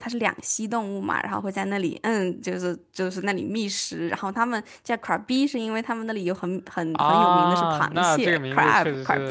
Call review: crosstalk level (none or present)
present